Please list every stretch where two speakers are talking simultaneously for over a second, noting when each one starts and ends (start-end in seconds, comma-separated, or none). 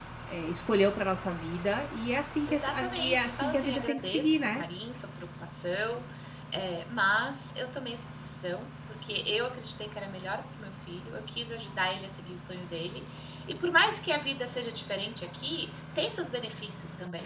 2.5-4.6